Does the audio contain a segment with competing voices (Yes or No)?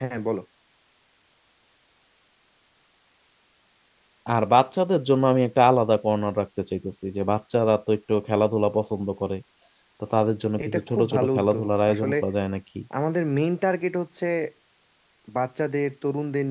Yes